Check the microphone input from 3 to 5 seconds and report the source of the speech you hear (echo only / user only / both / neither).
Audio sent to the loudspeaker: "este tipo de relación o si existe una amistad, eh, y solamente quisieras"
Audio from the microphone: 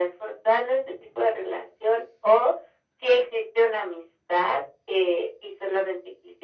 echo only